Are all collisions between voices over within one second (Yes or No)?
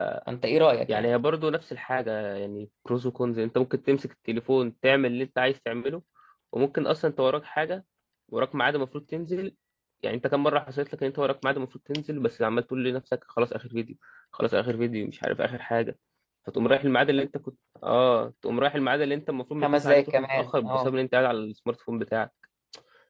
No